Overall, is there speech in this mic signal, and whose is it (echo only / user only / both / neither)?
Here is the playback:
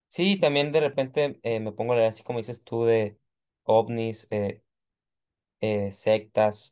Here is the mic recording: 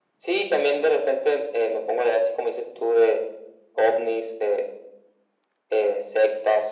echo only